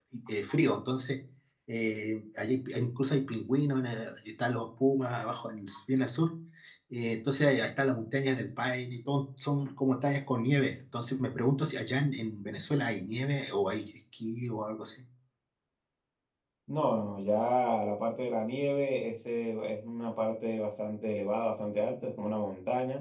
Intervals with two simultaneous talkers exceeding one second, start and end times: none

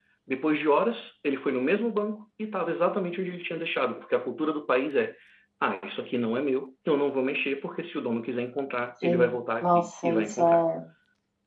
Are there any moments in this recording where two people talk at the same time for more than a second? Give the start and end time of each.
9.0-10.6

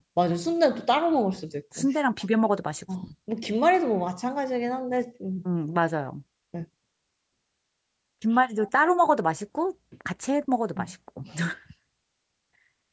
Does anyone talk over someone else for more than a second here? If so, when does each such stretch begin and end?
none

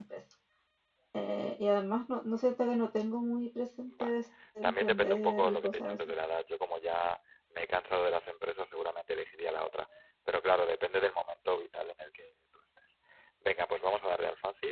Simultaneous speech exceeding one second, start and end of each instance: 4.6-6.0

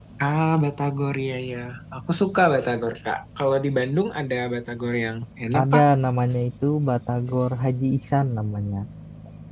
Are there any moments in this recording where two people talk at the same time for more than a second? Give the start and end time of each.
none

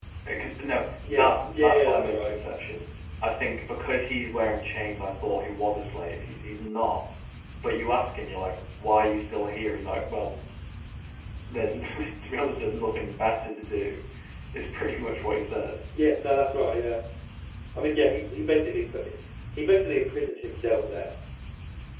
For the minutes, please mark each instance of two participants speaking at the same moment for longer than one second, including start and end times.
1.1-2.3

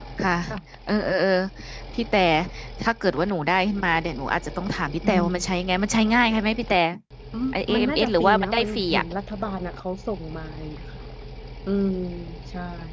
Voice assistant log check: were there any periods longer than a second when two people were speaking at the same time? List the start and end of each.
7.5-9.0

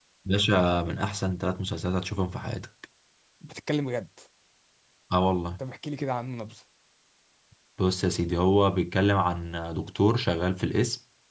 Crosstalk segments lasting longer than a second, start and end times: none

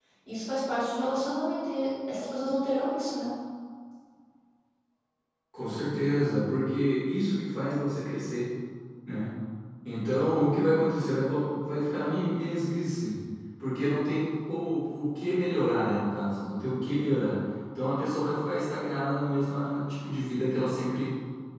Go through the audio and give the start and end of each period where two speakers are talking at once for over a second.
none

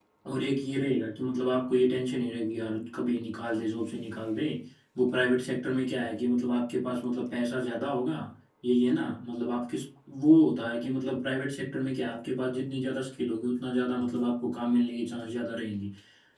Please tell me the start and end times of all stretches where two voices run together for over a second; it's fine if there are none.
none

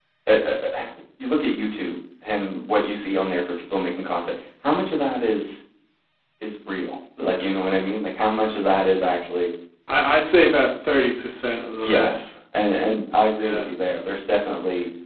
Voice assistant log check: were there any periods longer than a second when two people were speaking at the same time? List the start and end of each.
none

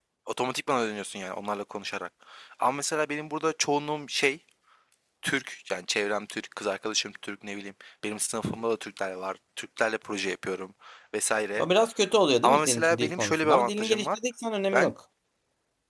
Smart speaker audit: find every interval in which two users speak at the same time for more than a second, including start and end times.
12.4-14.2

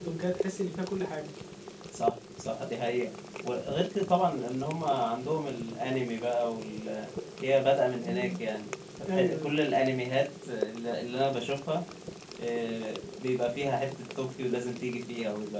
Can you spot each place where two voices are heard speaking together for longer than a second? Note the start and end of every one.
none

